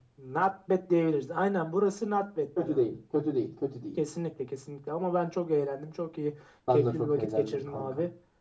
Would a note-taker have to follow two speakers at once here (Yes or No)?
Yes